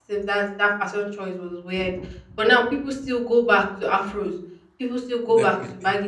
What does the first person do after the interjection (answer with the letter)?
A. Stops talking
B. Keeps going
B